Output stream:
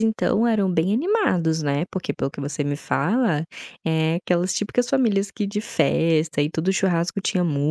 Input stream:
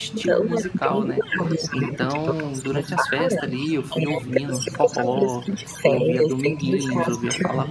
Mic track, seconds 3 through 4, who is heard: both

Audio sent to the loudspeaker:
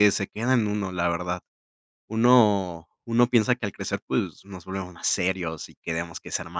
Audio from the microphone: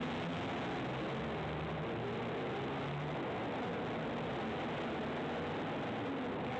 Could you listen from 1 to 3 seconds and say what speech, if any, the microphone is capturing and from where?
neither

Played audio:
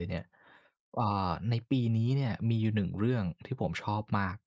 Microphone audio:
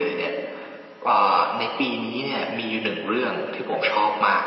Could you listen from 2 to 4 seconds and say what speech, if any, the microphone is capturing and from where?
echo only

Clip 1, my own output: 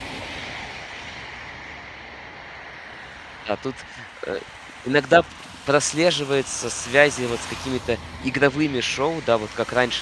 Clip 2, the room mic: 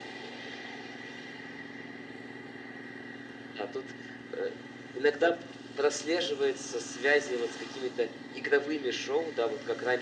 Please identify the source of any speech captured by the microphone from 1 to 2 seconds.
neither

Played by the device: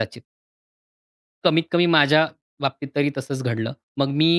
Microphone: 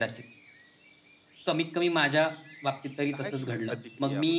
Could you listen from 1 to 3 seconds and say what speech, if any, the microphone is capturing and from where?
echo only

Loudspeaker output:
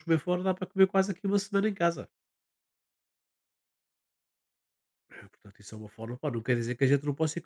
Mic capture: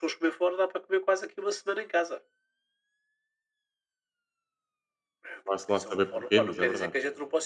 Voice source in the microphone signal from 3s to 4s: neither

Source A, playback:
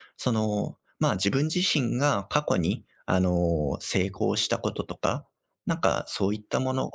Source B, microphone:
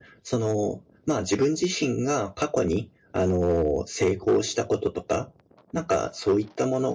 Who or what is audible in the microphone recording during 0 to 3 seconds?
echo only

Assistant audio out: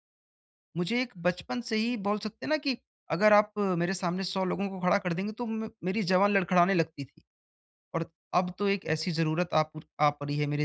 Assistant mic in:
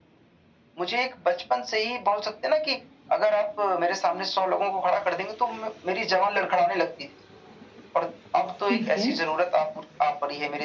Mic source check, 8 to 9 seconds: both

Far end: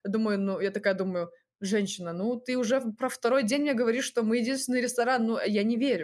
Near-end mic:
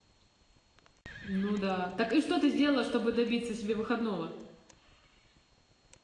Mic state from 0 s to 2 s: user only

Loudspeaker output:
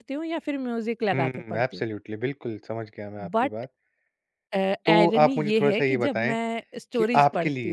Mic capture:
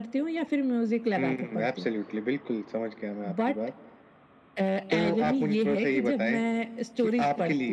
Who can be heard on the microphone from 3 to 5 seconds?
echo only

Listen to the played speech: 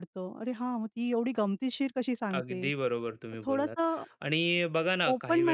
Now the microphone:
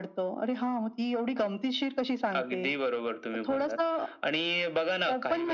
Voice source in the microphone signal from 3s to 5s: echo only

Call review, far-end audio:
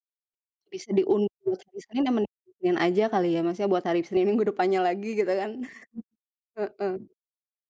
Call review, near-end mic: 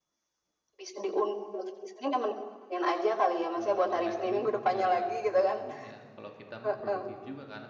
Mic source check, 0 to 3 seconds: echo only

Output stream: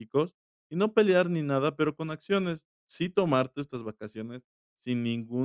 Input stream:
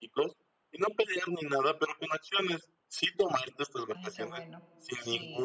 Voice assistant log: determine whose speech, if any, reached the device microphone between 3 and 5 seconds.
both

